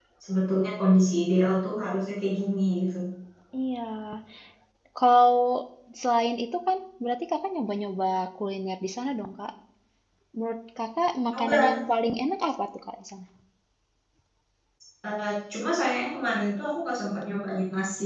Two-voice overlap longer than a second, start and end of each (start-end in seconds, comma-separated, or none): none